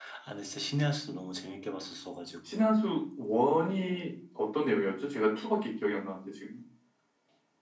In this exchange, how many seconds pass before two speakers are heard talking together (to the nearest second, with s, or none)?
none